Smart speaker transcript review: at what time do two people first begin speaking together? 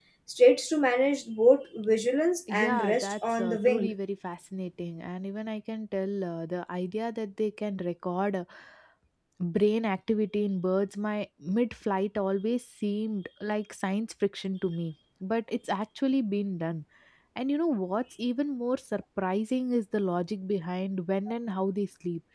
2.5 s

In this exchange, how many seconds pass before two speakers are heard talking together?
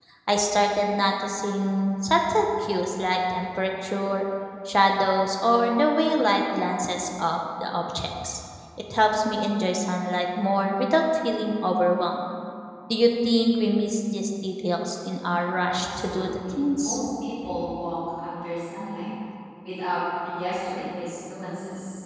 15.7 s

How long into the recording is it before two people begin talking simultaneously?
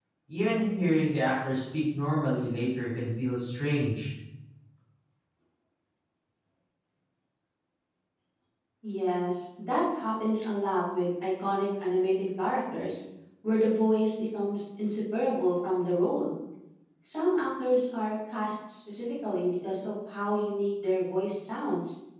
none

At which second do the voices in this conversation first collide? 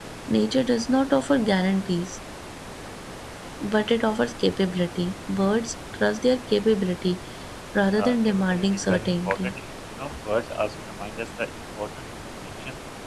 7.9 s

